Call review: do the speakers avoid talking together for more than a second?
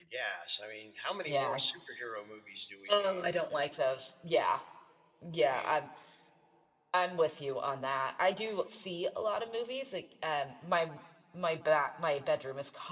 Yes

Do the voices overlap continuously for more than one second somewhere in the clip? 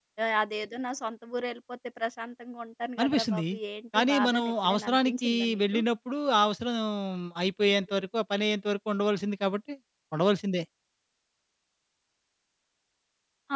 Yes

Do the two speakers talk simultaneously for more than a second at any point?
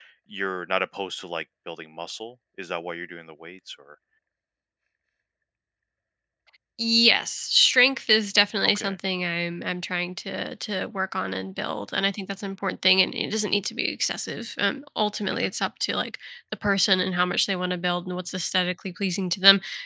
No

